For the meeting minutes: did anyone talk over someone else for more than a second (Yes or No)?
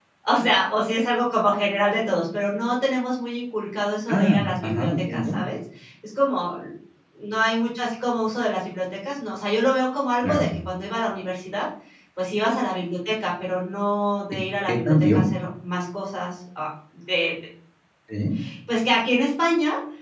Yes